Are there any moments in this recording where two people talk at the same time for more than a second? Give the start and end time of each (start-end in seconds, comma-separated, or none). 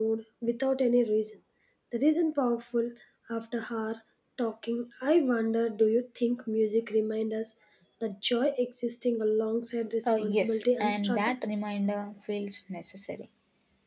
10.1-11.3